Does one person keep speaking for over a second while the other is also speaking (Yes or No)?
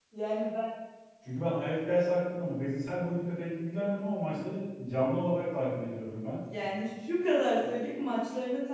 No